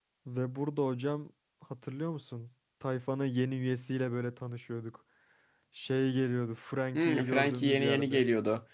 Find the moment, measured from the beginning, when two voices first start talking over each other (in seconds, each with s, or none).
6.9 s